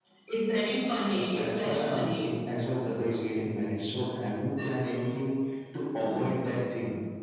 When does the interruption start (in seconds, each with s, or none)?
1.1 s